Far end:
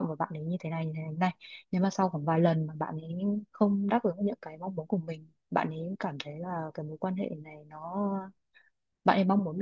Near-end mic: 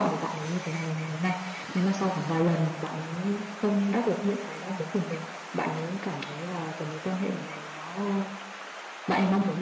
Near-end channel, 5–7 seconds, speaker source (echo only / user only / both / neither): echo only